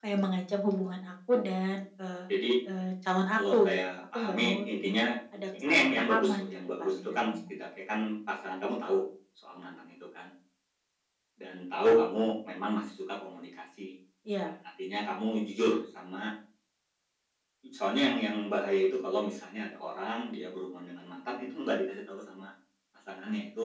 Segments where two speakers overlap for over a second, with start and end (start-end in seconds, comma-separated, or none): 3.4-4.9, 5.7-7.5